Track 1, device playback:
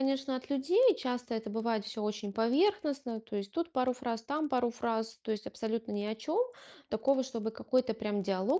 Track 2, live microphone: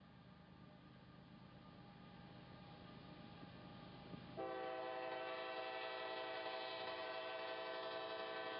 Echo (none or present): none